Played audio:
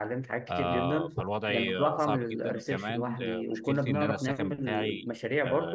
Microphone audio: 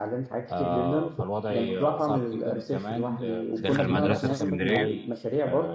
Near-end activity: present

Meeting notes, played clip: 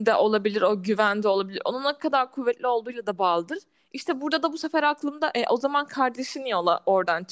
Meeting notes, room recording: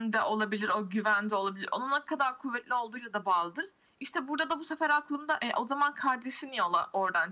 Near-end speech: none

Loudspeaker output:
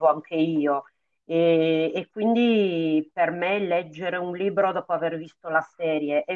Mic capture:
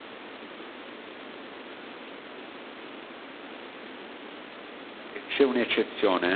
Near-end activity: present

